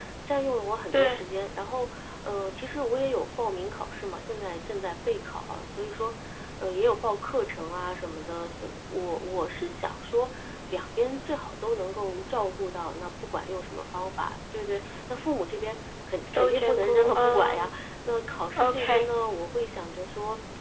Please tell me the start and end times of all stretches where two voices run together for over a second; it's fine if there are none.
16.4-17.7

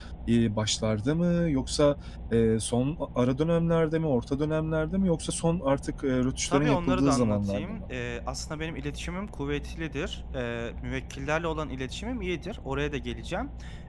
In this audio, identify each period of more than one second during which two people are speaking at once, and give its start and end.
6.5-7.8

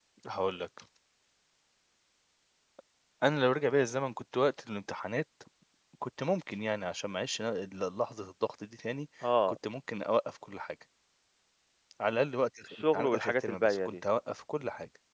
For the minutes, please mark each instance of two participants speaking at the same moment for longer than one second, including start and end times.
12.7-14.0

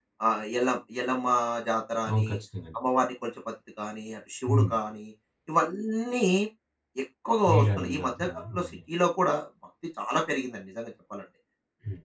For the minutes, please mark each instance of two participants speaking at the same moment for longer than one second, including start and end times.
7.5-8.8

